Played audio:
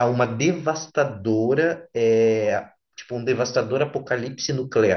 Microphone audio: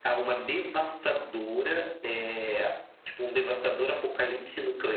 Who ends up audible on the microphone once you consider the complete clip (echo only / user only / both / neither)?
echo only